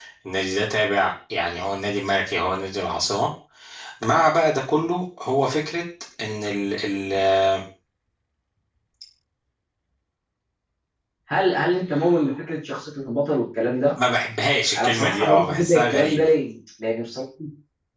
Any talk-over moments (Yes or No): Yes